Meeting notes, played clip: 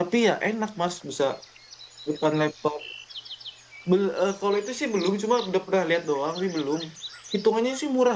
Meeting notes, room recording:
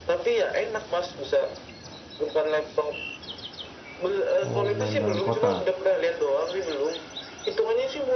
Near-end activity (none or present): present